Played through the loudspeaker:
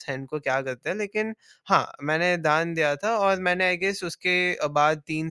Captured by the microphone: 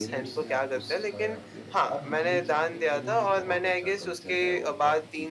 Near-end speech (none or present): present